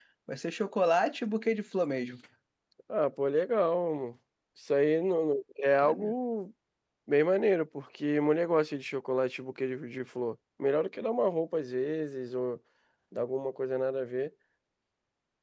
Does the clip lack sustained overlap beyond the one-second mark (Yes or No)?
Yes